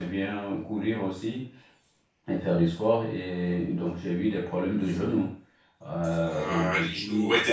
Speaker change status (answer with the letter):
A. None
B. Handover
B